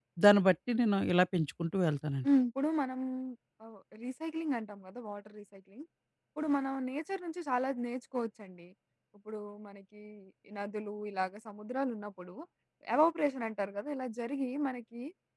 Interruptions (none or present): none